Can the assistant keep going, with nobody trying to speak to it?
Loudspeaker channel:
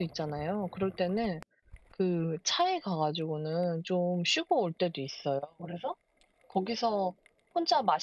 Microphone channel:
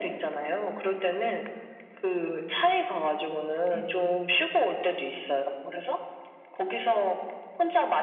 No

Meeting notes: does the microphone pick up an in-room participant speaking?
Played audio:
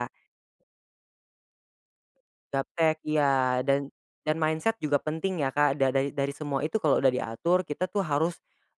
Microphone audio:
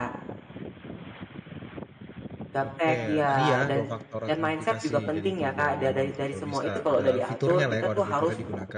Yes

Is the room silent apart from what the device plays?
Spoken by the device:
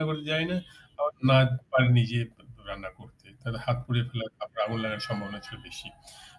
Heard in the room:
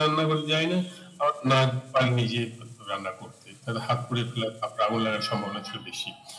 Yes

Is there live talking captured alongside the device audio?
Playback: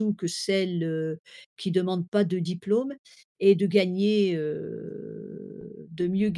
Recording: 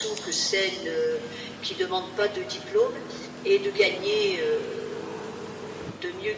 No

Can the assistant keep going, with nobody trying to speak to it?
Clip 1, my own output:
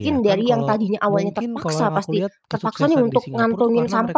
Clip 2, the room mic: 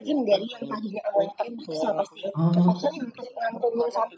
No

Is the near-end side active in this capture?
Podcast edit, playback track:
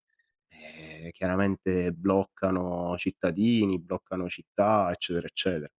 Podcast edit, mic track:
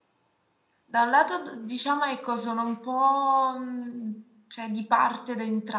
Yes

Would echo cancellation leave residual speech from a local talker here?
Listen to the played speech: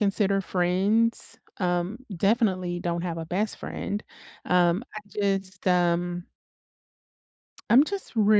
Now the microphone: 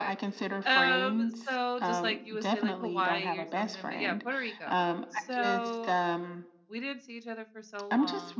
Yes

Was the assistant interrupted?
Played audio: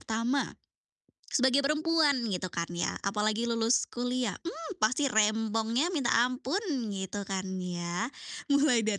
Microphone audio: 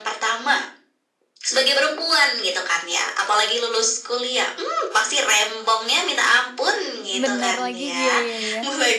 Yes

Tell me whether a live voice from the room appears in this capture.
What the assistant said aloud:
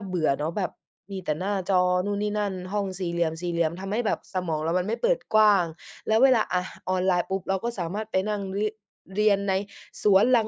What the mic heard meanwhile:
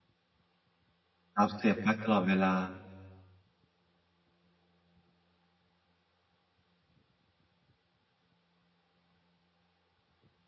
Yes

